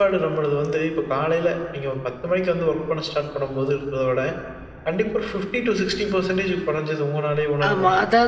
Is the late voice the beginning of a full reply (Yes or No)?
Yes